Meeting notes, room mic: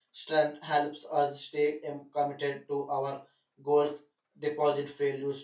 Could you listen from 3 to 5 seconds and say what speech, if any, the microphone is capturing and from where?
user only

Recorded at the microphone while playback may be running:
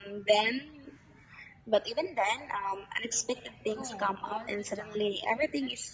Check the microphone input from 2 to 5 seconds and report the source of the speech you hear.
both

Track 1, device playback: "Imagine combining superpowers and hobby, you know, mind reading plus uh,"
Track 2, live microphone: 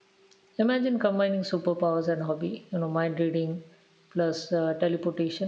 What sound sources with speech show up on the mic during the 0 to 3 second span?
echo only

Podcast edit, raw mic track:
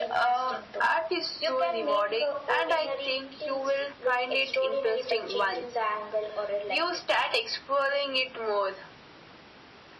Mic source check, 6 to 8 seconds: echo only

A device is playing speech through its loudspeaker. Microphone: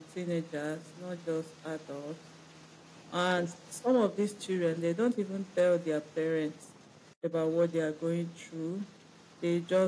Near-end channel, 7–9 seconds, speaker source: echo only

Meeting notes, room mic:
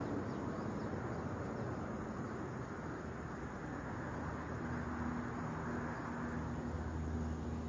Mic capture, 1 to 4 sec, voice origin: neither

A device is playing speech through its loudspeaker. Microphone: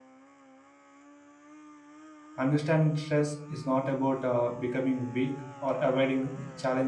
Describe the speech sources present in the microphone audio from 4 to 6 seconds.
user only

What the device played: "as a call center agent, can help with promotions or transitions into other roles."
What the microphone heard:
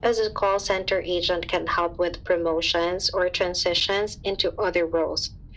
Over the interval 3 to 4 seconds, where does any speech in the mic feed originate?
echo only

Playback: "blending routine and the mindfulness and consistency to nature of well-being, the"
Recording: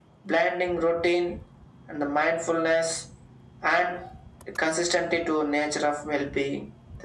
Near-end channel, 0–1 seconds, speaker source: echo only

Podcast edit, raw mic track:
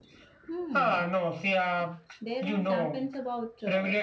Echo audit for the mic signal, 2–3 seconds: both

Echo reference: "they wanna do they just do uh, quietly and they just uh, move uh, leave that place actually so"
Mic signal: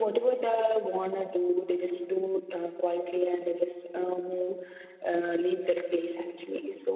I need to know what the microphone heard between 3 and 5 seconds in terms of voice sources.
echo only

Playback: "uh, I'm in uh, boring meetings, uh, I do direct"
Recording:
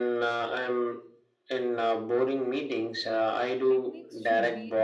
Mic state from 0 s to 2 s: echo only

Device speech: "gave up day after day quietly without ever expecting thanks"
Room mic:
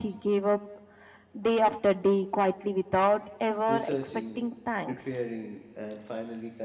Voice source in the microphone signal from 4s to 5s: both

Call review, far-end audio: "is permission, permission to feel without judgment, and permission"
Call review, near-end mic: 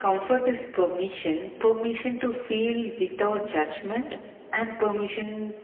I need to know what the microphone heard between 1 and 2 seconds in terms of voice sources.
echo only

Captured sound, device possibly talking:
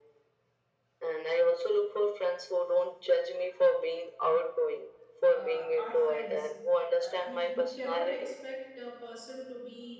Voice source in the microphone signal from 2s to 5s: echo only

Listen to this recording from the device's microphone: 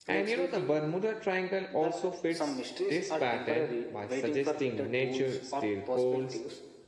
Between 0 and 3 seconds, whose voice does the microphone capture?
both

